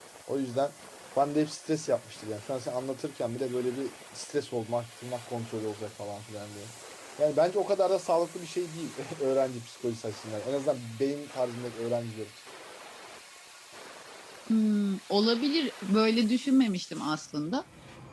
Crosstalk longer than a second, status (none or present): none